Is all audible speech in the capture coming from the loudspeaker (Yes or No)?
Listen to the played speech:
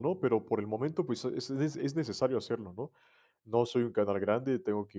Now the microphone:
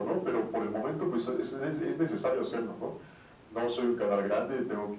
Yes